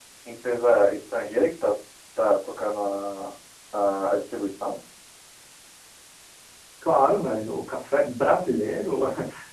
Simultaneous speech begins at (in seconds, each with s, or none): none